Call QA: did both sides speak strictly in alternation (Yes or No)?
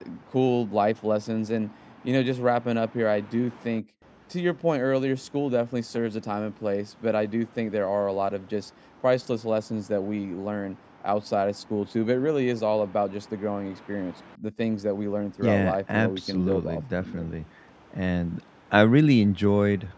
No